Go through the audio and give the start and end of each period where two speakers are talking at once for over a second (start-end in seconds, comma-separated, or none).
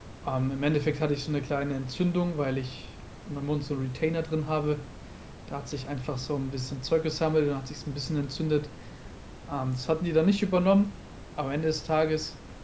none